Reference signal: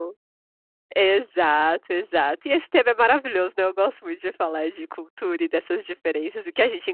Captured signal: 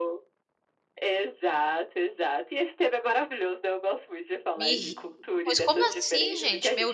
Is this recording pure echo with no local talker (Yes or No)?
No